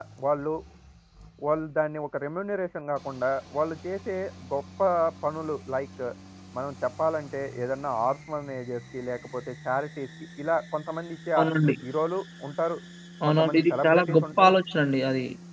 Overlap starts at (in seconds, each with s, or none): 13.3 s